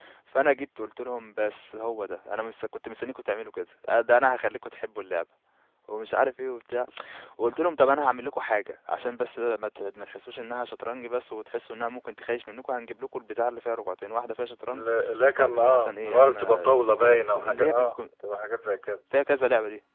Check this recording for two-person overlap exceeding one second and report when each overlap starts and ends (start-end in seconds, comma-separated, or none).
15.4-18.0